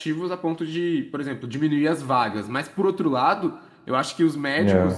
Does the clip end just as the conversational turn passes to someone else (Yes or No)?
No